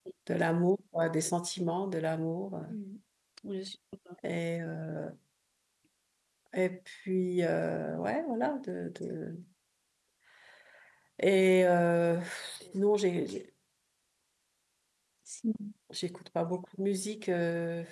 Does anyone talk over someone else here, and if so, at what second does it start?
none

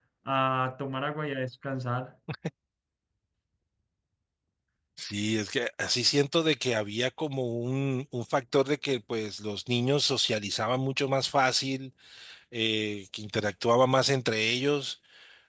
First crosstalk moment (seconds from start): none

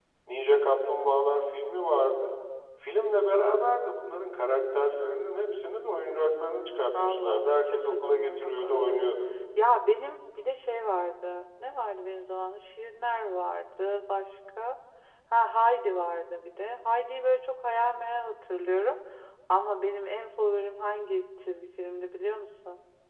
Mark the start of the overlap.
6.9 s

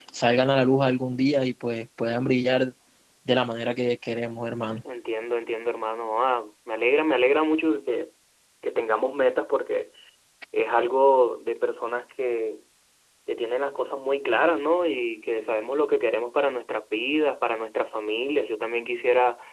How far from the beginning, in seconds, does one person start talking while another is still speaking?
none

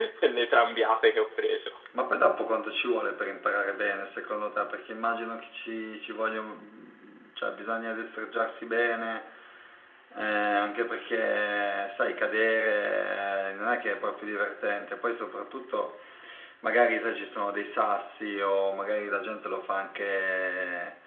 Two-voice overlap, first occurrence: none

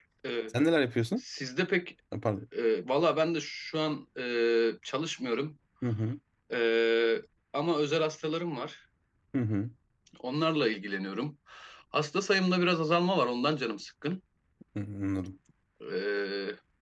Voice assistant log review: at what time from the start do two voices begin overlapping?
none

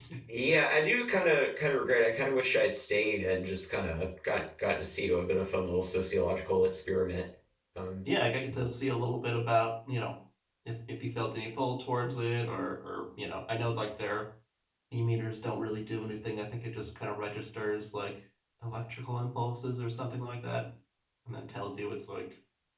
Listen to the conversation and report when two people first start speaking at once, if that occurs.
none

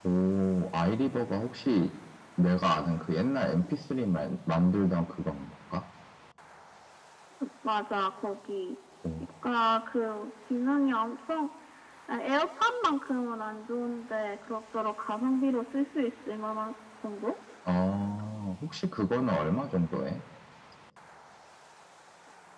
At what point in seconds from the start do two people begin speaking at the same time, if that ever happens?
none

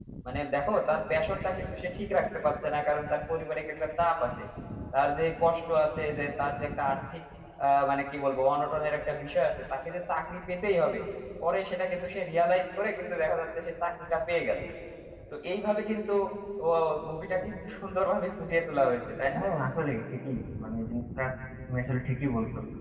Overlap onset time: none

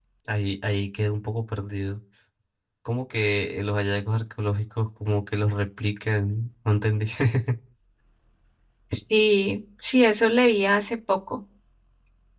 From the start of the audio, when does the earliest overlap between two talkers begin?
none

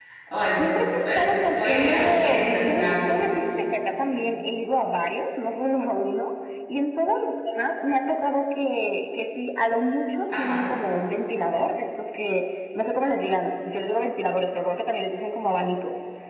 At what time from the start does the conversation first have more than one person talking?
1.0 s

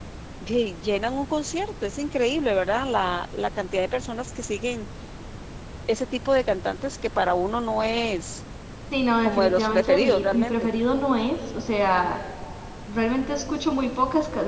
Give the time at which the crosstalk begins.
9.2 s

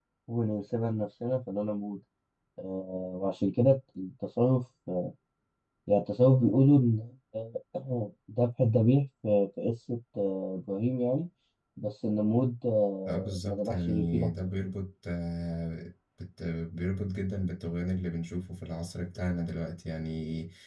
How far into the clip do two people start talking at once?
13.1 s

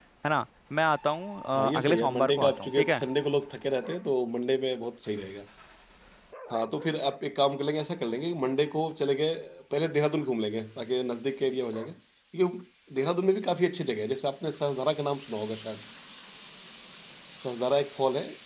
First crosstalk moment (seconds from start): 1.5 s

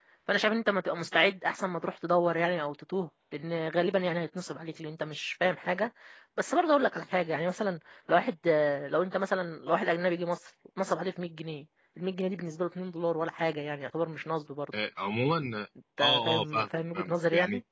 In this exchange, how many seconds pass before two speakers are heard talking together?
16.0 s

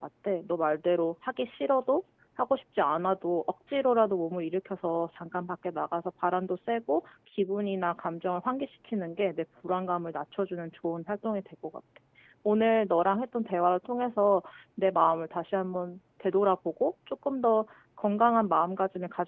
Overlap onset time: none

